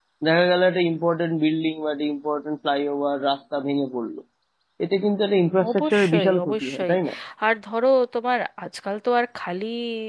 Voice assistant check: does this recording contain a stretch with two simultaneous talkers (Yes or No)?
Yes